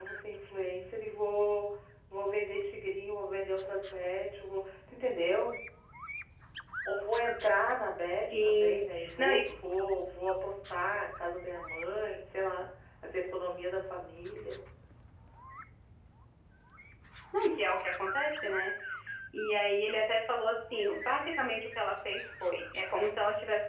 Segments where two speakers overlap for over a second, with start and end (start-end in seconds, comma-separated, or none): 8.2-9.4